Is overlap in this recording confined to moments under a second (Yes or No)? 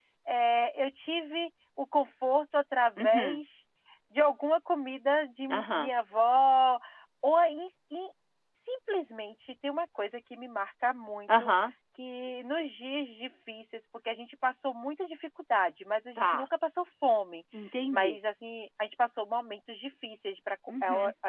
Yes